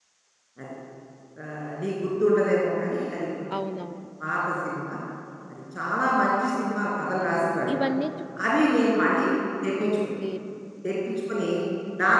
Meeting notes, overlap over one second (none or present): none